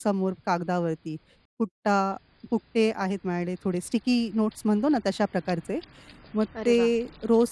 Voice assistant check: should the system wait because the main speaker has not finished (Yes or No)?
Yes